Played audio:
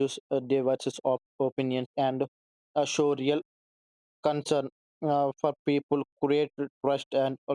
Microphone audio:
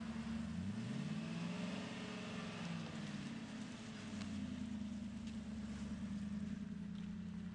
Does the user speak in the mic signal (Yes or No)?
No